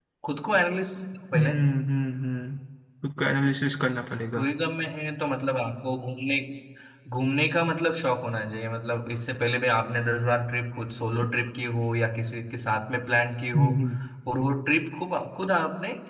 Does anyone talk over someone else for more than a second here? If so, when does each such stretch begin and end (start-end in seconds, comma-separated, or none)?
none